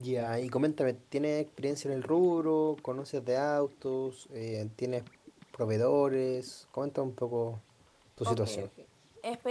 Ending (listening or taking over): taking over